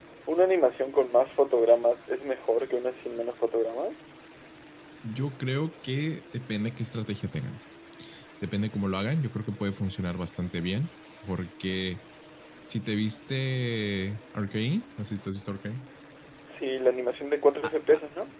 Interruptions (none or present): none